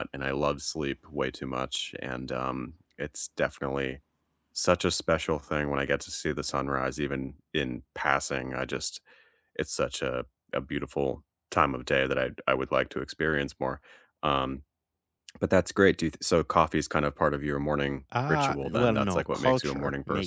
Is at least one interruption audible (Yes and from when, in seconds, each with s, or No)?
Yes, from 18.1 s